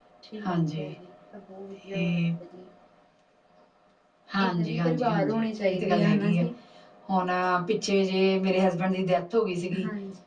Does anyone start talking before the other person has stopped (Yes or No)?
Yes